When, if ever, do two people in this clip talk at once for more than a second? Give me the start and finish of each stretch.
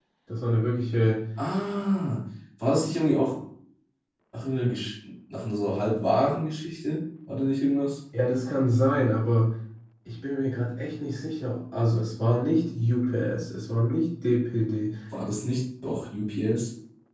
none

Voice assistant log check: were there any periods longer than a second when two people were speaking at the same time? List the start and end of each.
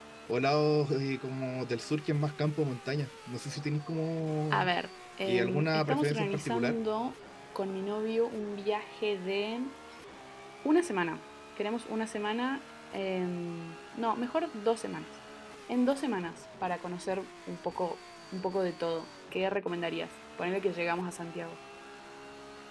5.2-6.8

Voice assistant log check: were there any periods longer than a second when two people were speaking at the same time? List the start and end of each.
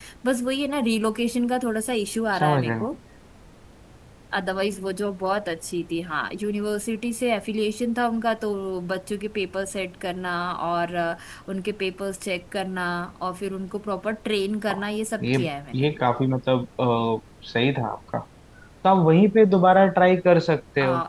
none

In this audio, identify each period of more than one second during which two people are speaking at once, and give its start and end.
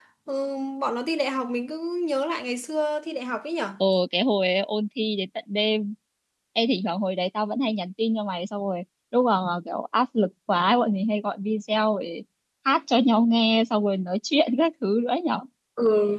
none

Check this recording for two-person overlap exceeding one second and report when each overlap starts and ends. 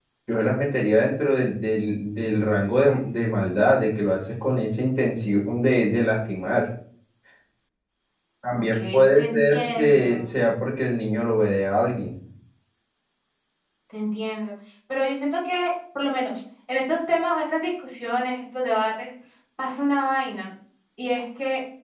8.5-10.3

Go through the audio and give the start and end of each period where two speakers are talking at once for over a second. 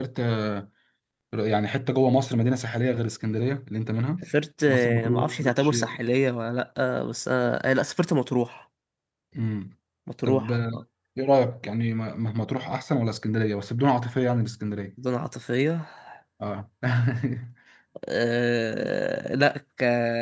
4.7-5.9

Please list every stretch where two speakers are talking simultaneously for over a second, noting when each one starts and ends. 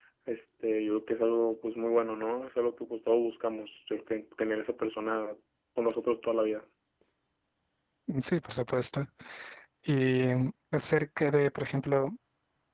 none

